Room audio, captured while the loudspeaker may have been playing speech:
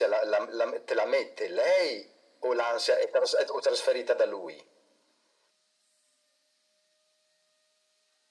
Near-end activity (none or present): none